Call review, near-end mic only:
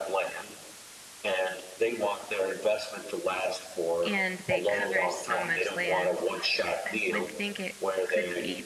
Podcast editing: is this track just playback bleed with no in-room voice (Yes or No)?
No